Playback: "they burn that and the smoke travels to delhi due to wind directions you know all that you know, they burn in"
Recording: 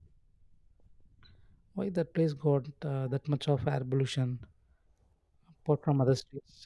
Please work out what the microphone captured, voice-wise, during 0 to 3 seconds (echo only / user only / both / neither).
user only